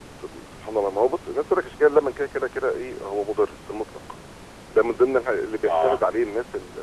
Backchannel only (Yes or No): Yes